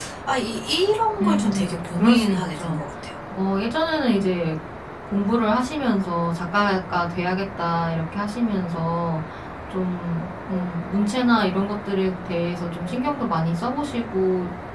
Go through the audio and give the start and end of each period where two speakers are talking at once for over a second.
1.2-2.8

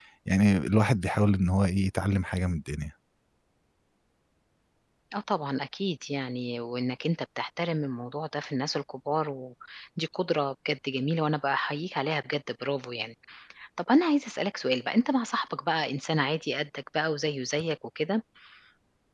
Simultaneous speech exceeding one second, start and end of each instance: none

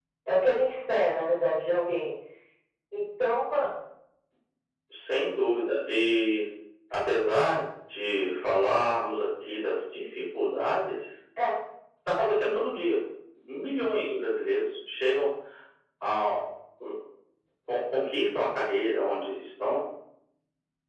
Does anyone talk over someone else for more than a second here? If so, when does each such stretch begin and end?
none

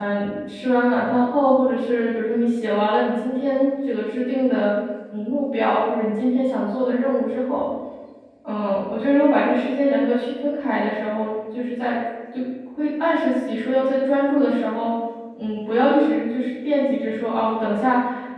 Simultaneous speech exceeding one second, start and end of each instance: none

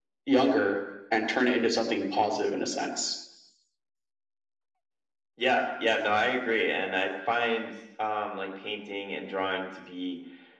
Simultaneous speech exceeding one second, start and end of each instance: none

